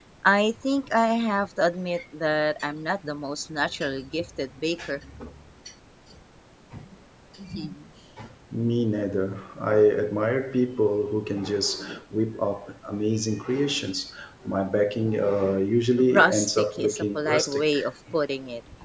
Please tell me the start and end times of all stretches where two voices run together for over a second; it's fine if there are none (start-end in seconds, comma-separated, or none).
16.0-17.6